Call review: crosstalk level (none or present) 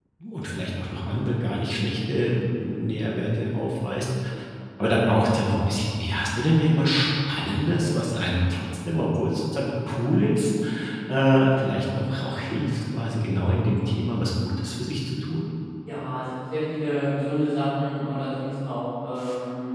none